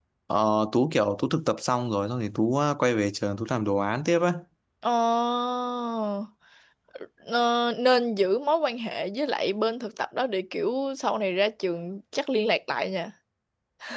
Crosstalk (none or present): none